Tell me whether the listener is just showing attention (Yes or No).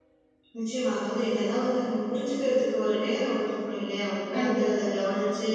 Yes